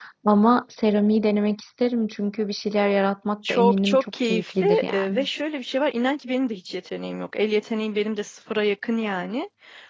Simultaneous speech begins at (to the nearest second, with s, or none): 3 s